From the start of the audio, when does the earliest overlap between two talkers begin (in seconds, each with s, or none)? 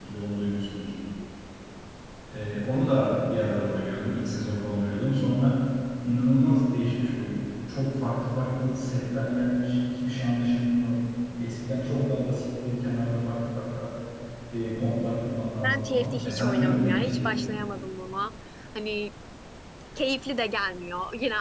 15.6 s